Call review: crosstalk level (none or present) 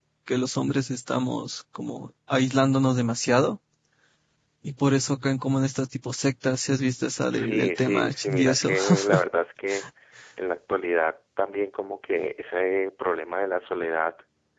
present